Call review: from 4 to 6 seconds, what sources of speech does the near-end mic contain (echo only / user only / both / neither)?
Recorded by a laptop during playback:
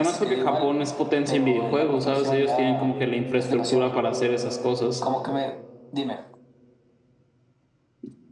both